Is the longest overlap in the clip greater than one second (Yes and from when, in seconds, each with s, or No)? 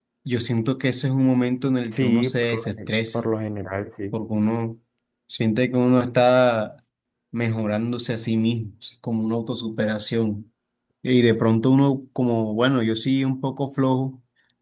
Yes, from 1.9 s